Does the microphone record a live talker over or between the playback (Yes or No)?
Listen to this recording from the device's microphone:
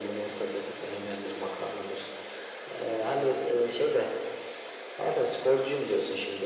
No